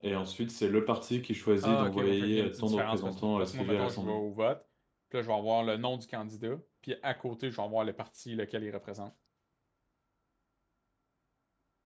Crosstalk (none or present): present